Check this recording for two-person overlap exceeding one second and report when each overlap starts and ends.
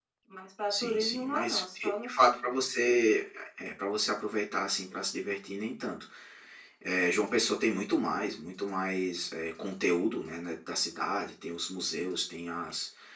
0.7-2.6

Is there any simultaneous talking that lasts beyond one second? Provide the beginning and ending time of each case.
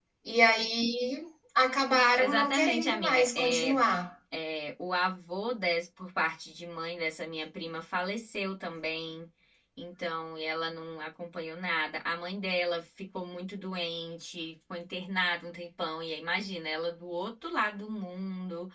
2.2-3.8

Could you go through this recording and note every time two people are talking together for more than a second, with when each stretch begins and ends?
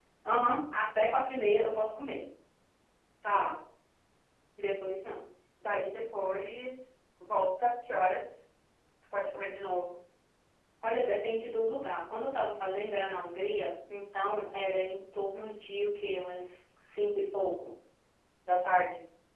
none

